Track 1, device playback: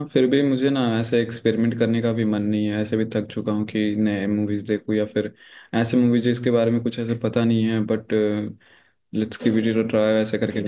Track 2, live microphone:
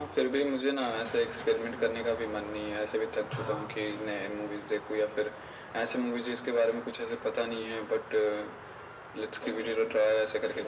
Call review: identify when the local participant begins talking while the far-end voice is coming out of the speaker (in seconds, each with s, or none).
3.3 s